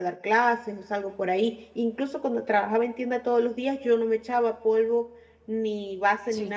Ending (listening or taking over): listening